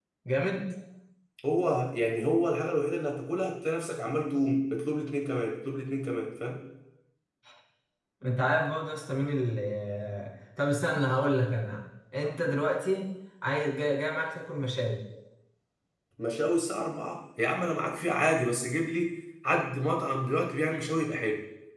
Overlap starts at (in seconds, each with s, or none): none